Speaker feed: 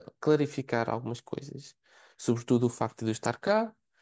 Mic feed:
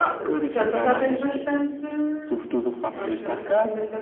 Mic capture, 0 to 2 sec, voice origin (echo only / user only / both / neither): both